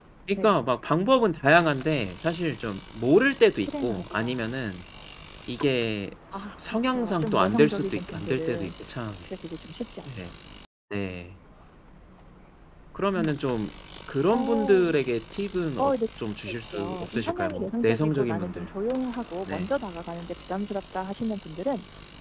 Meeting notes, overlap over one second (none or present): present